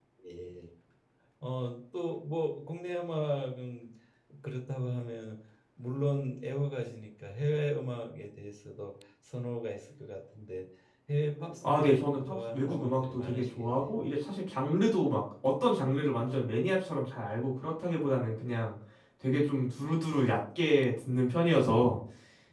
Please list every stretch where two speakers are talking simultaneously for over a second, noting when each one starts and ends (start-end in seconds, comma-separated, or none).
11.6-14.0